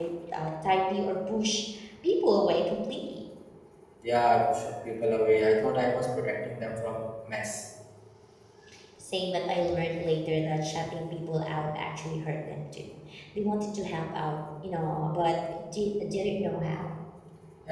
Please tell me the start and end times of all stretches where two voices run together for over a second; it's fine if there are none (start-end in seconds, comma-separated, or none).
none